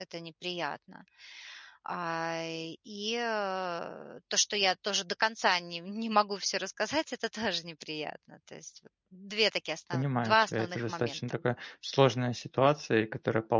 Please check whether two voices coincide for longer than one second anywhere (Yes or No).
Yes